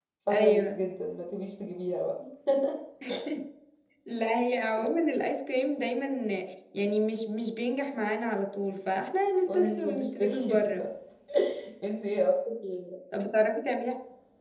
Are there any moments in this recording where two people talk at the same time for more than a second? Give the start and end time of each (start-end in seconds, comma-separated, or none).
9.5-10.9